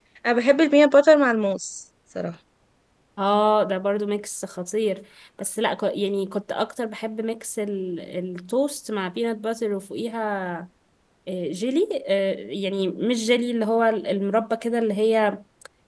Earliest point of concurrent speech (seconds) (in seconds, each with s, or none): none